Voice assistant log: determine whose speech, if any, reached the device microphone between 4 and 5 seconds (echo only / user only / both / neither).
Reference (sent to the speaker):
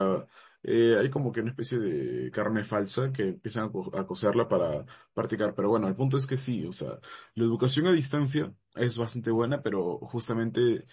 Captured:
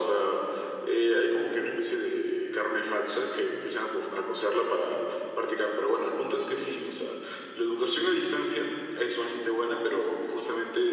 echo only